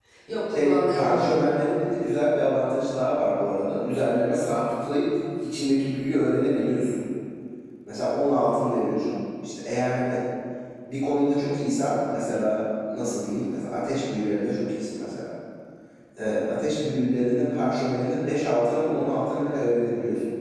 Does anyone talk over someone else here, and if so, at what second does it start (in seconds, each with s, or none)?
0.5 s